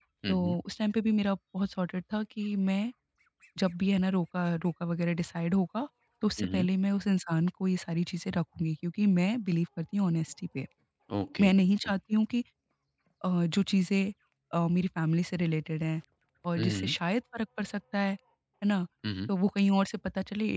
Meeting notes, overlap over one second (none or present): none